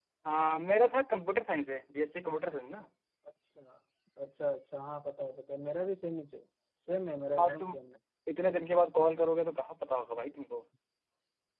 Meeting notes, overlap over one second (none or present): none